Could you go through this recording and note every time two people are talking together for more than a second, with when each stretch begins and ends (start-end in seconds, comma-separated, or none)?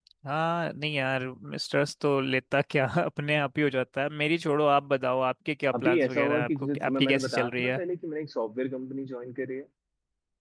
5.8-7.8